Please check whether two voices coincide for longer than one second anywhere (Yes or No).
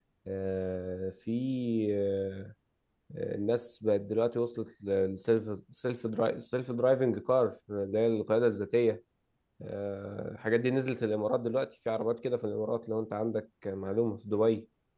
No